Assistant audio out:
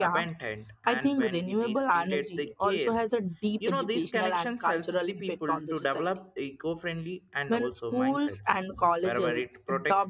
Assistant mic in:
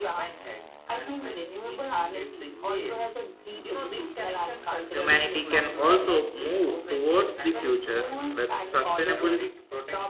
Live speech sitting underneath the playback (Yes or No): No